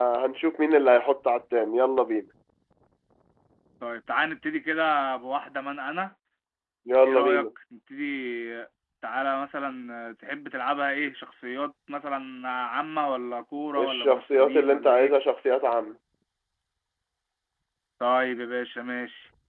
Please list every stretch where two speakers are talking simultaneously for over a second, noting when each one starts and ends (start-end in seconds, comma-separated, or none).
13.8-15.1